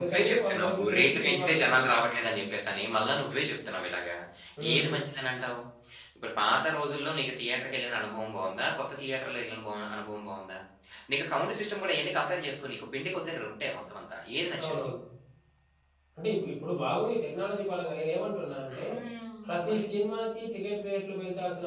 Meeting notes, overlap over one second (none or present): present